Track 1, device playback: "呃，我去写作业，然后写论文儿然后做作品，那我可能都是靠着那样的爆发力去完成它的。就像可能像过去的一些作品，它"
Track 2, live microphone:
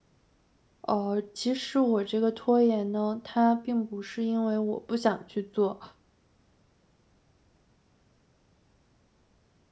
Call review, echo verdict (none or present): none